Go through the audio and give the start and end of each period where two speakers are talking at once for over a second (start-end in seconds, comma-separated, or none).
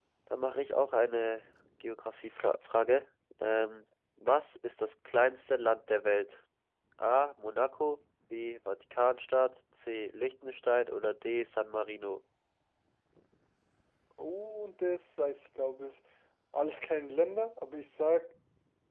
none